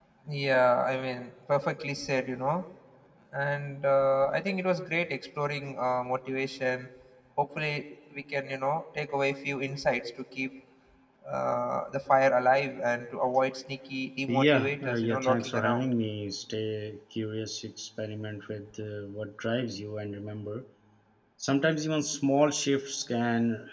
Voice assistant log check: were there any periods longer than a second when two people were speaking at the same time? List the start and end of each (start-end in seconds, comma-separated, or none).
14.3-15.8